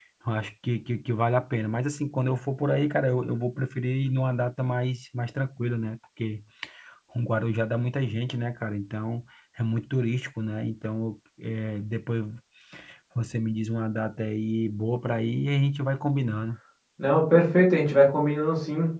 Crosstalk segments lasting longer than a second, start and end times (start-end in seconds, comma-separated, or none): none